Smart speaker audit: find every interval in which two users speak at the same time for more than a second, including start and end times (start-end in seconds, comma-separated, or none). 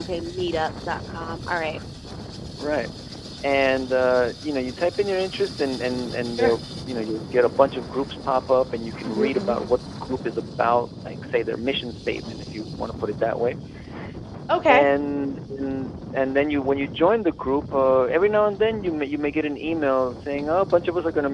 none